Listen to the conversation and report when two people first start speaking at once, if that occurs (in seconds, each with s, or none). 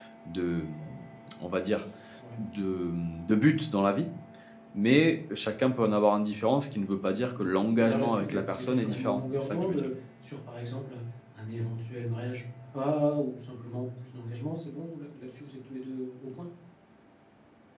7.8 s